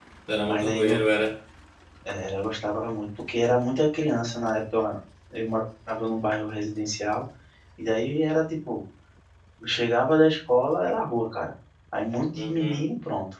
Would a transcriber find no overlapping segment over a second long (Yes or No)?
Yes